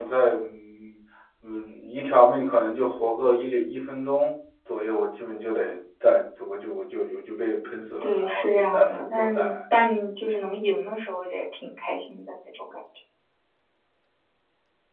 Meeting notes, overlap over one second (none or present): present